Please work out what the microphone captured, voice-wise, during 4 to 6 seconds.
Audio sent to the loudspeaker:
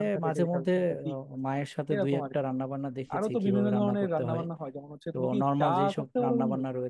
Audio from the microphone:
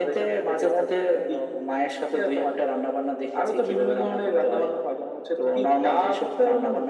echo only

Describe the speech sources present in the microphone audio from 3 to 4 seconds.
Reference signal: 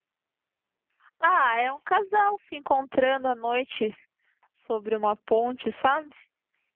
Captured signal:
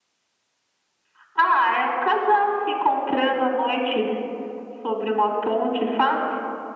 echo only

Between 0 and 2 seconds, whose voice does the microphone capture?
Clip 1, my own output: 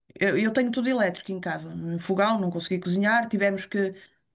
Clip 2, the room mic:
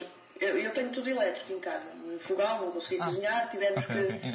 echo only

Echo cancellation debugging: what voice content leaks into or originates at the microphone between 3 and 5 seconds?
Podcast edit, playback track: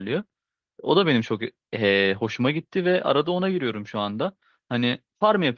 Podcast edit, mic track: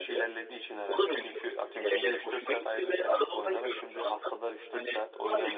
both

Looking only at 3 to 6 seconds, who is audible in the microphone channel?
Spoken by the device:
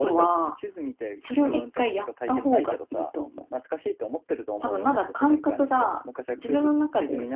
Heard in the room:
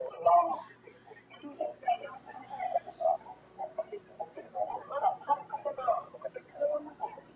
echo only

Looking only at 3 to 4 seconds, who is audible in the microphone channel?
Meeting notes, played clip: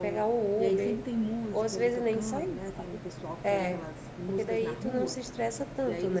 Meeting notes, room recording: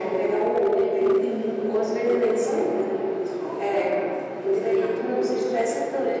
echo only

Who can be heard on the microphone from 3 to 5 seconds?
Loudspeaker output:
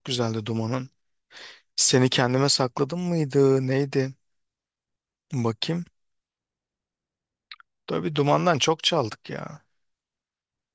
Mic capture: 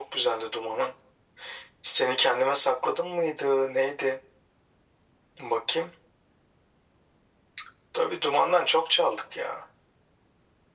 echo only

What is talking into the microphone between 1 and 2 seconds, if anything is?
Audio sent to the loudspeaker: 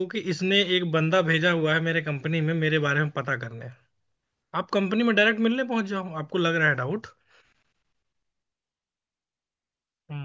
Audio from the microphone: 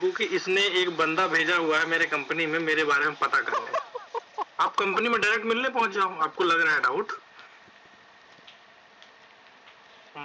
echo only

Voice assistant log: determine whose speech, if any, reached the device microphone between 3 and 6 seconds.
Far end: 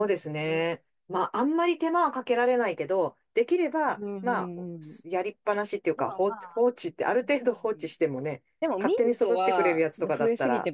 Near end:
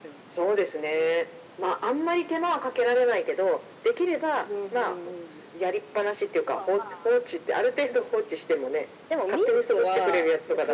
echo only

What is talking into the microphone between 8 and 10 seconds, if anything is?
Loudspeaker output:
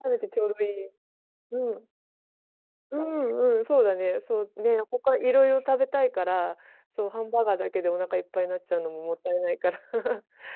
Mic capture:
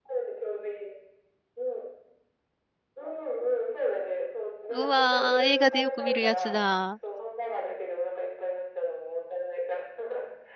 echo only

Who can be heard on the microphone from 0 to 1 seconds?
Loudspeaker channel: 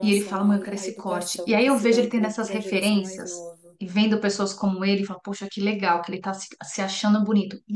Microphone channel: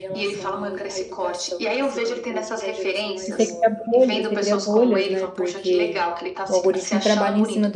echo only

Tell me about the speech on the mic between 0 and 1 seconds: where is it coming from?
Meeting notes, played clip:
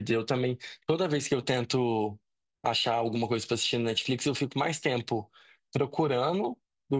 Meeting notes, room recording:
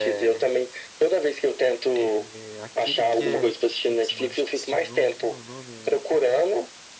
both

